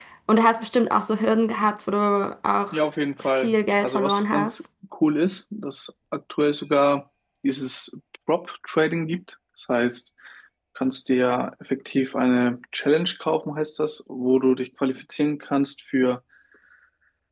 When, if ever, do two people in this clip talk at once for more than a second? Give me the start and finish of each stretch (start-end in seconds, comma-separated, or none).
3.2-4.6